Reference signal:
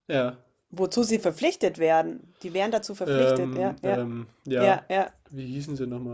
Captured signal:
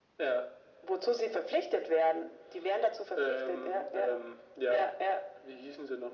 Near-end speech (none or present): none